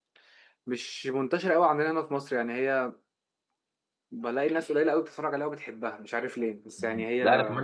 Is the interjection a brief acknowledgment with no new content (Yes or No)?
No